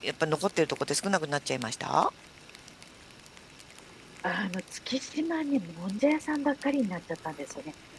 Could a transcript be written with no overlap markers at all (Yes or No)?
Yes